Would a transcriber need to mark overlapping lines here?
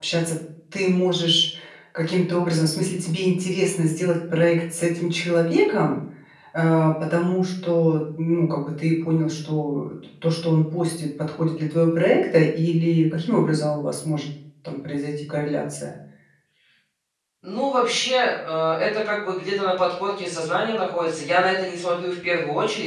No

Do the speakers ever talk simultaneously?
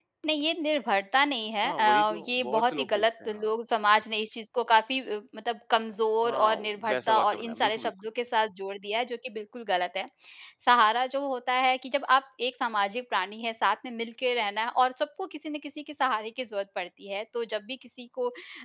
Yes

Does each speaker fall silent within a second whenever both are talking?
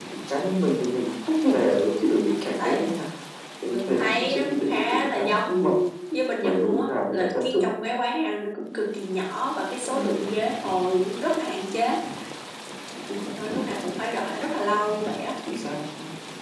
No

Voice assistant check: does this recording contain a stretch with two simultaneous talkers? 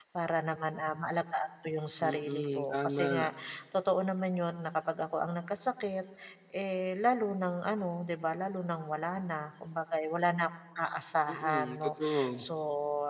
Yes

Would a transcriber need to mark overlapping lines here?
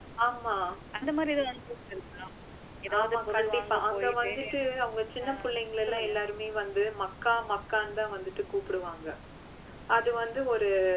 Yes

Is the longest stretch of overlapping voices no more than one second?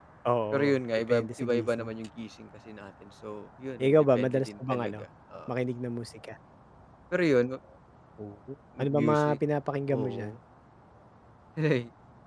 No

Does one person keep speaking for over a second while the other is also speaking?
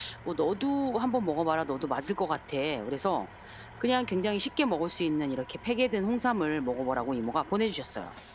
No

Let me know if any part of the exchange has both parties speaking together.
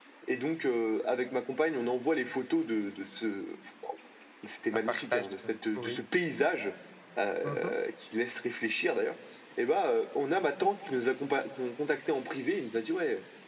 Yes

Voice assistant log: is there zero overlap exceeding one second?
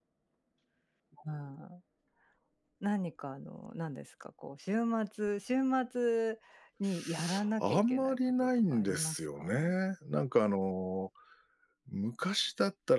No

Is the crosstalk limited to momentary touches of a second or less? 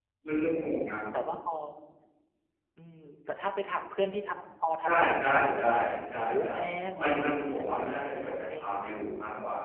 No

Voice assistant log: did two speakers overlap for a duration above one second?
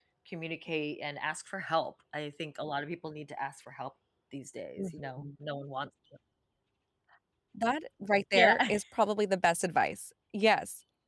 No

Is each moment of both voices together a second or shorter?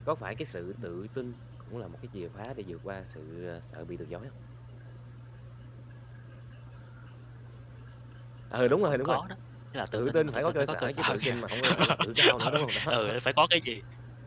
No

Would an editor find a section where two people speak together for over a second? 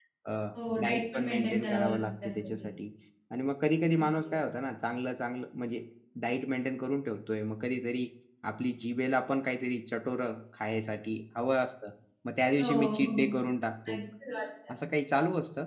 Yes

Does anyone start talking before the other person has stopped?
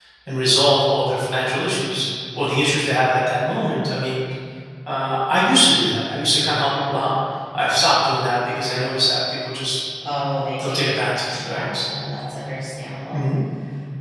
Yes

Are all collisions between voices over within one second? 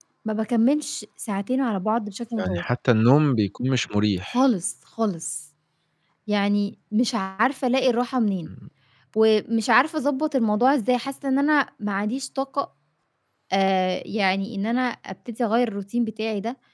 Yes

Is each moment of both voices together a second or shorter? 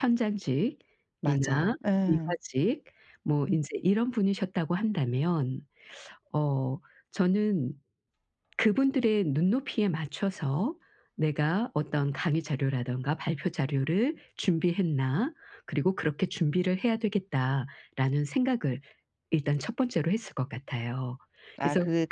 Yes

